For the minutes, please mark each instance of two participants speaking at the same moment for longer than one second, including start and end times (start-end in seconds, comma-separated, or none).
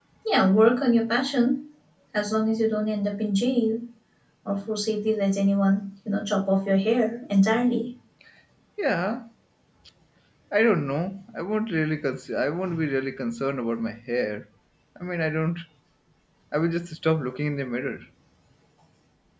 none